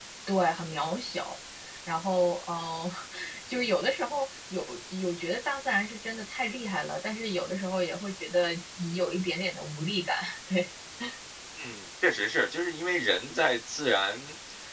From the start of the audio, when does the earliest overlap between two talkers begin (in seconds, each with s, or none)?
none